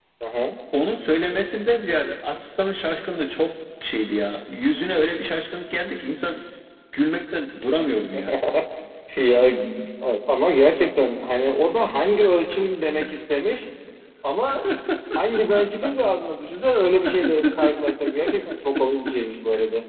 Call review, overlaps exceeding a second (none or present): none